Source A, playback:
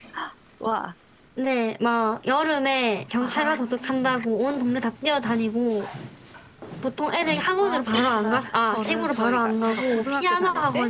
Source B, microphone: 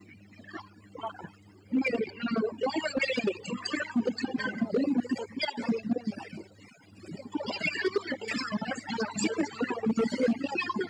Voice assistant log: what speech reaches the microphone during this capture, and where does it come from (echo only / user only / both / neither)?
both